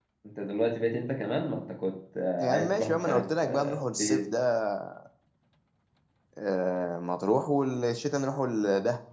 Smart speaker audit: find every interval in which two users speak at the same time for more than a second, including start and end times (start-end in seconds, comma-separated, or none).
2.4-4.3